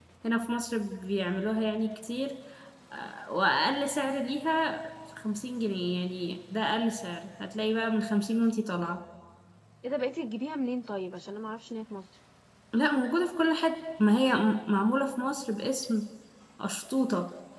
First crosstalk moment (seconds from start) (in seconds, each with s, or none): none